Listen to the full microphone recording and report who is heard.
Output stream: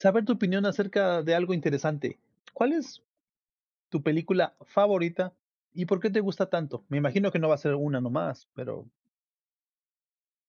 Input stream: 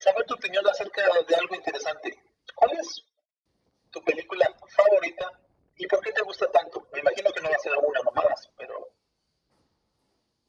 echo only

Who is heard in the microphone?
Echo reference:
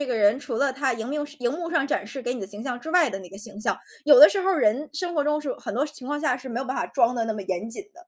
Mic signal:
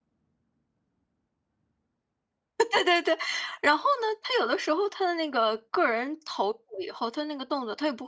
user only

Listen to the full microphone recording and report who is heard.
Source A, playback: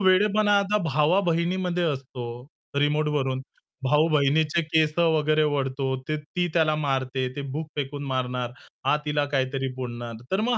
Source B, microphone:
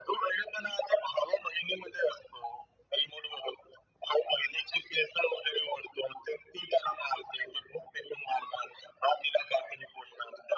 echo only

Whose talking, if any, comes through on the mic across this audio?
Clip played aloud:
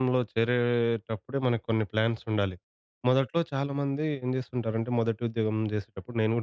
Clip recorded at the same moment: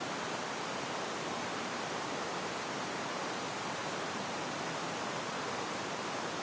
neither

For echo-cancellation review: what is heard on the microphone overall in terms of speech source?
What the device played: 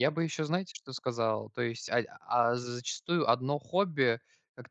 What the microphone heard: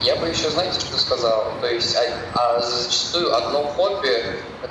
echo only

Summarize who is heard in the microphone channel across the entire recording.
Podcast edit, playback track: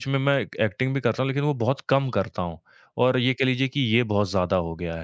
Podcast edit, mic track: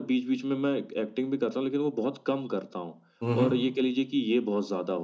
both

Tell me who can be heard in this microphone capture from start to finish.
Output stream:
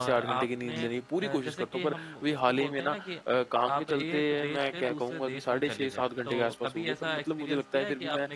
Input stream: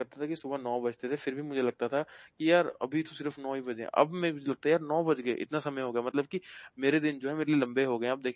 user only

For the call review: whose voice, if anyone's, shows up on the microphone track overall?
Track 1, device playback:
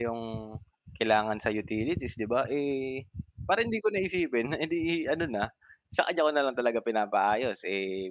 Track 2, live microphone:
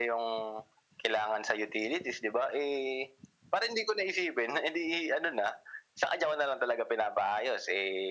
echo only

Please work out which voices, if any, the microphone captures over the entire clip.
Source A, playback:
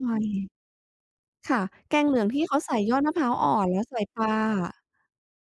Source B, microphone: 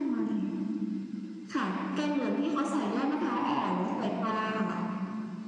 echo only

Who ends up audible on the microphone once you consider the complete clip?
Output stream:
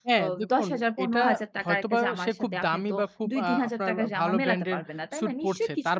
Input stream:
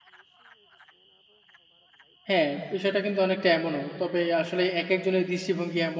user only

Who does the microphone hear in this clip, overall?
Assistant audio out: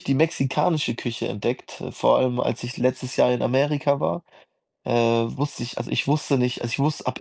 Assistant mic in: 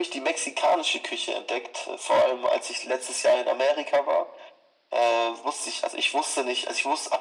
echo only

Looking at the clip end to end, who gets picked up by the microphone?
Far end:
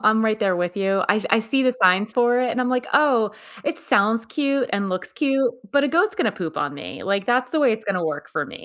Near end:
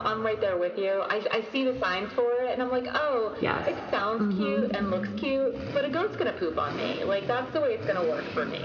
both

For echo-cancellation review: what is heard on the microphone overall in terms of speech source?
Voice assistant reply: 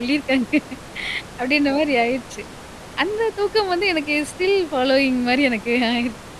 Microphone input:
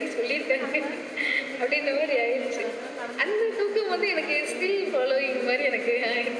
both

